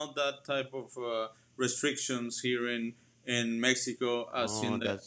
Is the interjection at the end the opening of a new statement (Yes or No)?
Yes